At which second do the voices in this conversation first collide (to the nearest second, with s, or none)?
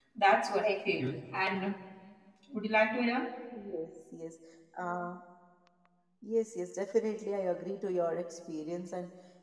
none